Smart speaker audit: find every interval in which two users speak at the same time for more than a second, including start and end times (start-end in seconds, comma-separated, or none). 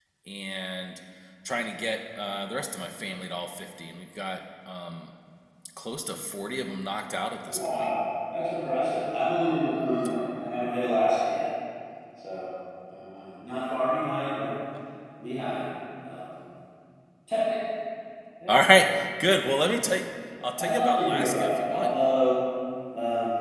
20.6-21.9